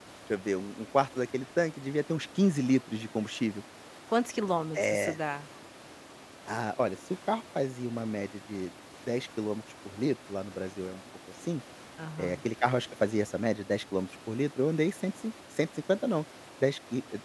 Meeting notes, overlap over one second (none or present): none